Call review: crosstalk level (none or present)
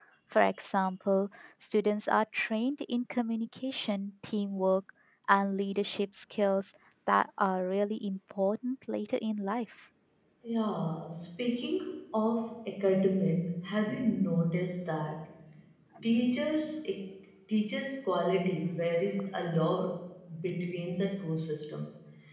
none